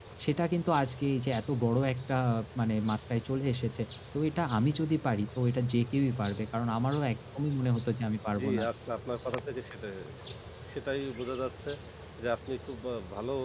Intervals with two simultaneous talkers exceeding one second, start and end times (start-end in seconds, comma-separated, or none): none